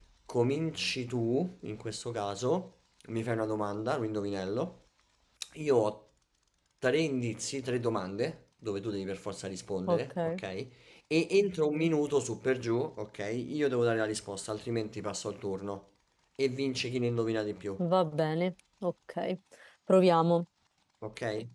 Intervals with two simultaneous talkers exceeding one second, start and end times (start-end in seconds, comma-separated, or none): none